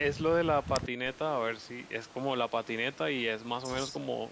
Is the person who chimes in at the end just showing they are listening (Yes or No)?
Yes